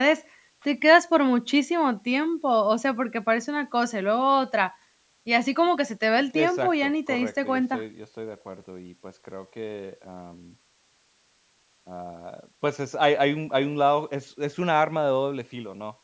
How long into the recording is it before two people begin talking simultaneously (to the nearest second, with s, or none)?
6 s